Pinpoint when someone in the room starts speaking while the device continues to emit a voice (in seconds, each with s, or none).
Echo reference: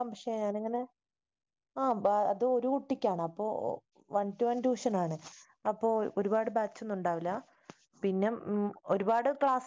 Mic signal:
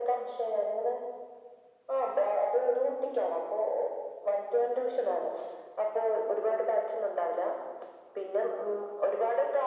none